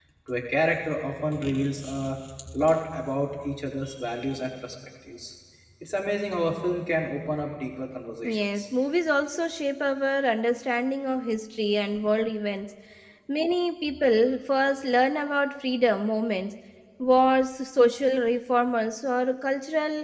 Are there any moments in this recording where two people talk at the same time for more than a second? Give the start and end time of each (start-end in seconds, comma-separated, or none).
none